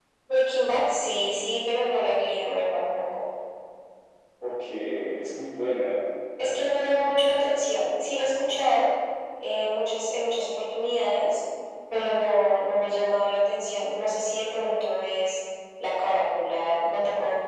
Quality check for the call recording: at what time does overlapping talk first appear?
none

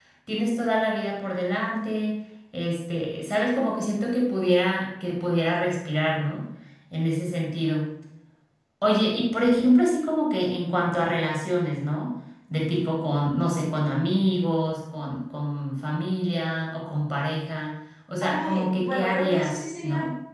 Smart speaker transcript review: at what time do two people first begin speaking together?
18.2 s

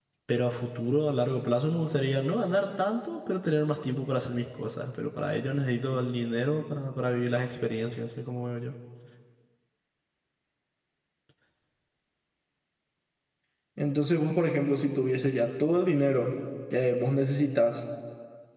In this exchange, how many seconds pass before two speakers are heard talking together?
none

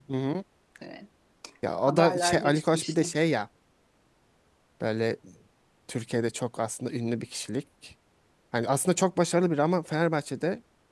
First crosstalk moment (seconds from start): 1.8 s

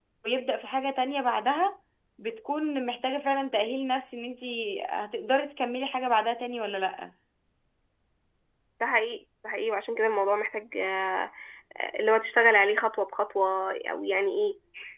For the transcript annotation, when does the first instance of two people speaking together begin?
none

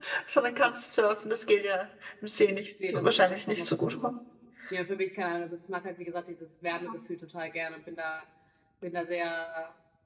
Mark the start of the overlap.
2.8 s

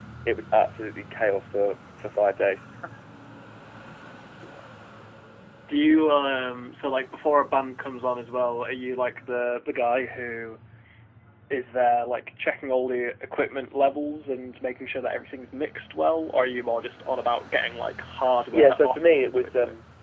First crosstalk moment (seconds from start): 18.5 s

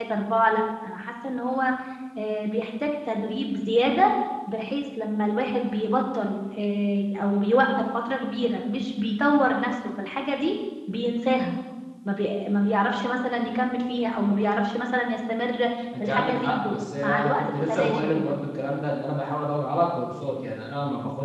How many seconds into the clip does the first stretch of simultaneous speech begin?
15.9 s

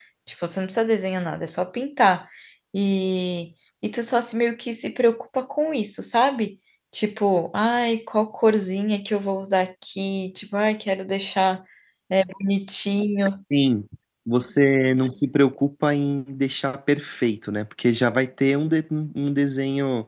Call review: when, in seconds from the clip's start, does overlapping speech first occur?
none

